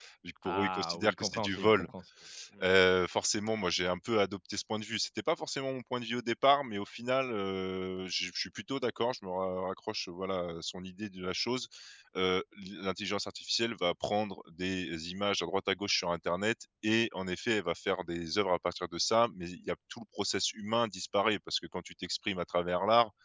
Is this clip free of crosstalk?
No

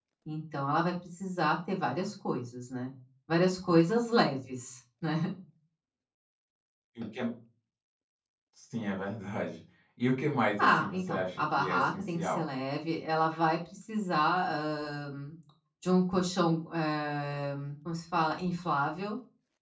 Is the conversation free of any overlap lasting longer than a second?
No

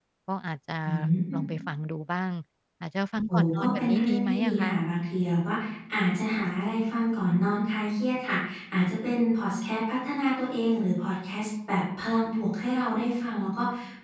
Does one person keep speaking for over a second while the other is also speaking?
Yes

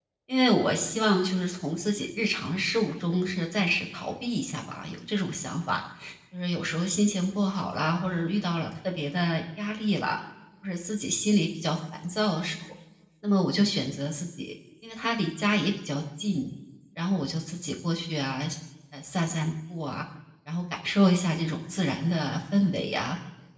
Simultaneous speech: No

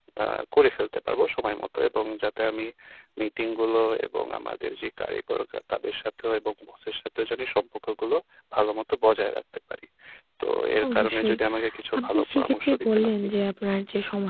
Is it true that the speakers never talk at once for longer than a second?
No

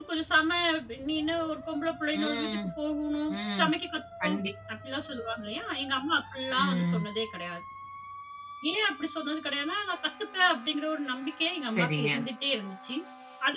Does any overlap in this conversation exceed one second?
No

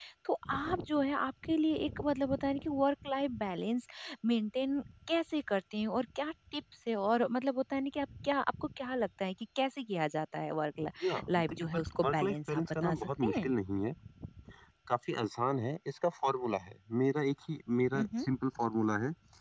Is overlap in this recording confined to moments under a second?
No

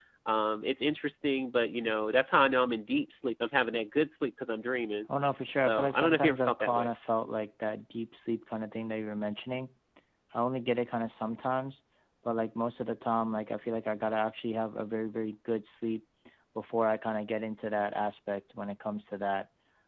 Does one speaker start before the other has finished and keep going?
Yes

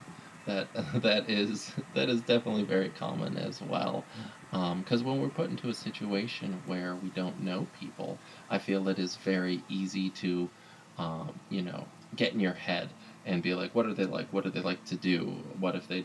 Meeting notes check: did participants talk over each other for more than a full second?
No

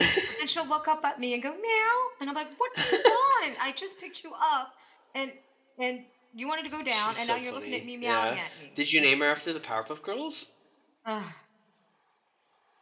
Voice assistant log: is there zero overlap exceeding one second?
No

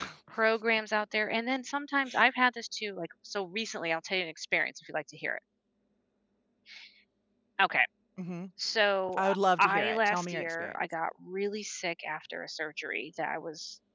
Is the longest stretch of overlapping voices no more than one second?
No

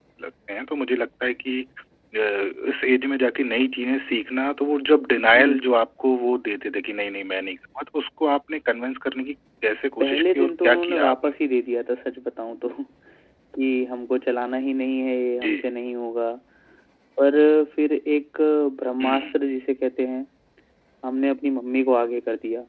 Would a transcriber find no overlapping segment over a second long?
No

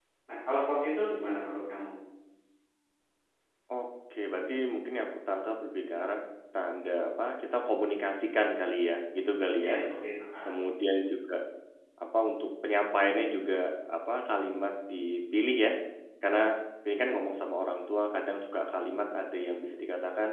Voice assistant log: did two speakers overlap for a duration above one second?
No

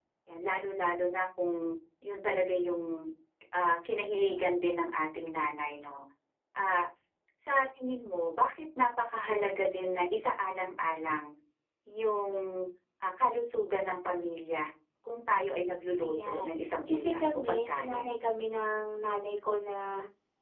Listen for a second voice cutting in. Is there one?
Yes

